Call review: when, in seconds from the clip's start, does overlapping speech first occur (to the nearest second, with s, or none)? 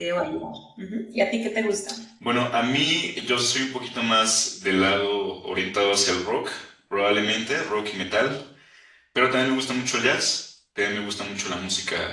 none